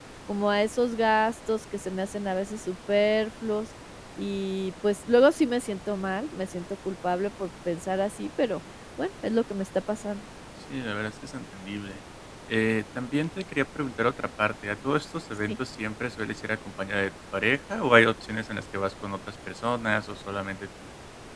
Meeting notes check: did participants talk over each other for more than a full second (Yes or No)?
No